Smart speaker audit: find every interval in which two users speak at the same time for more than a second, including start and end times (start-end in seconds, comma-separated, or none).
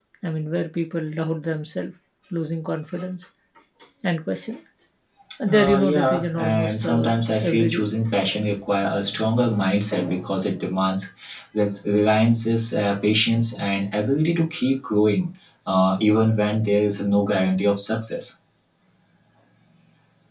5.5-7.1